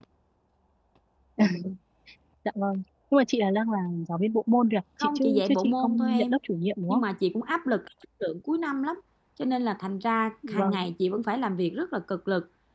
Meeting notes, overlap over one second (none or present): present